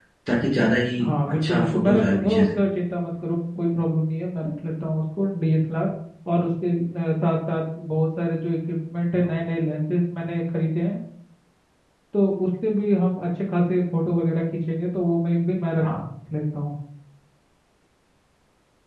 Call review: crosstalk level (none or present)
present